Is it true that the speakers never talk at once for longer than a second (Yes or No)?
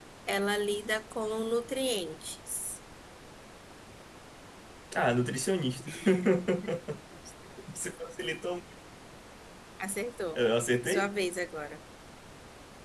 Yes